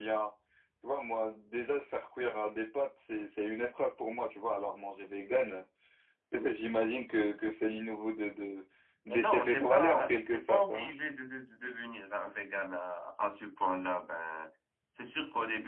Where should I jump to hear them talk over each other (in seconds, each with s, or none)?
9.1 s